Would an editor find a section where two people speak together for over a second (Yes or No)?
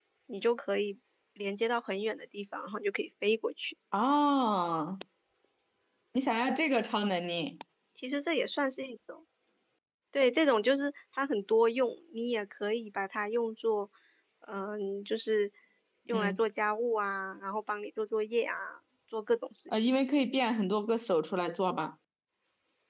No